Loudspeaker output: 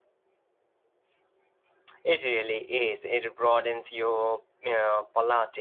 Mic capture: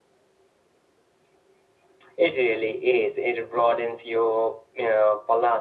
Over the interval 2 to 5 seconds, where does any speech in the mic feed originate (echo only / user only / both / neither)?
echo only